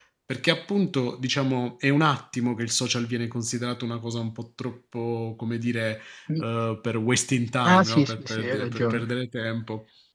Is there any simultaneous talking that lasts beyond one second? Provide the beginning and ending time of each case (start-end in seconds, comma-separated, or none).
7.6-9.1